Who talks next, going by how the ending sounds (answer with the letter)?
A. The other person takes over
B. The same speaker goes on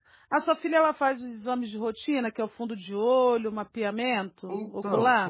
A